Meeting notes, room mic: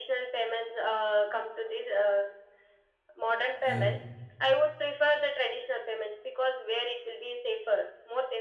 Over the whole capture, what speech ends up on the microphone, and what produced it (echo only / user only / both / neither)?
both